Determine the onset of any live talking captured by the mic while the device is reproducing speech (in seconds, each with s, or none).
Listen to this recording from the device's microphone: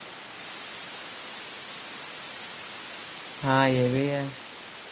3.4 s